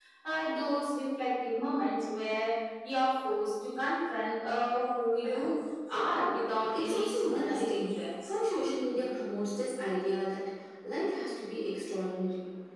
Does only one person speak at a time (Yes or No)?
No